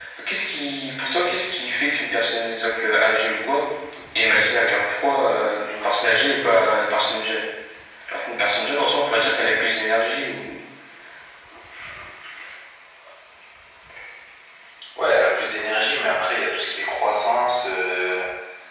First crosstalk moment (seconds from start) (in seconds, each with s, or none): none